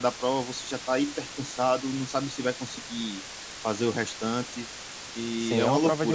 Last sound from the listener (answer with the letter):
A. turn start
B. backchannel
A